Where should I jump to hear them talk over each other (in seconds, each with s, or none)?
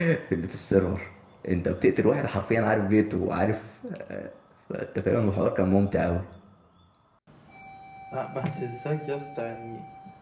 none